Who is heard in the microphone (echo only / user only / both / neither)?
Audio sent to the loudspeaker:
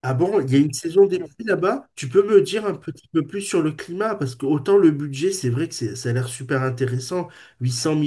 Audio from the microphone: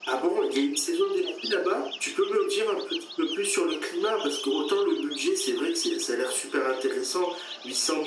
echo only